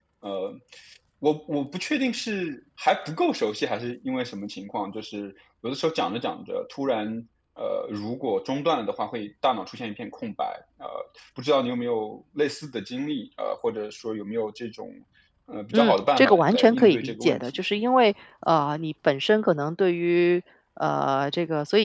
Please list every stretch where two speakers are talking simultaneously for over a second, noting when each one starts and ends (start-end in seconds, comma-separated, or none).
15.7-17.6